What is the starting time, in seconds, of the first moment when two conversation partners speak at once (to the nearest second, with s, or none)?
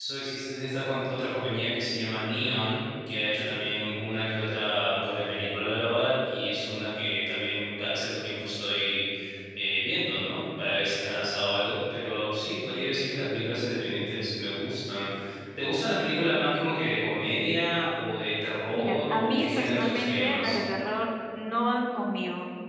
19 s